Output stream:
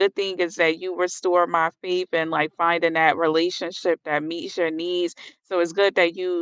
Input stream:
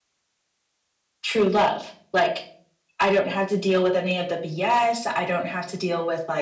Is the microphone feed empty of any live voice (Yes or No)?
No